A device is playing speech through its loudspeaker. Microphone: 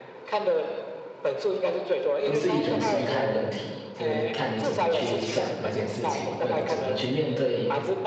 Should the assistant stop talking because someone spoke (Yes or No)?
Yes